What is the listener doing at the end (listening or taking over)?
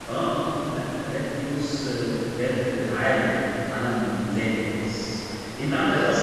listening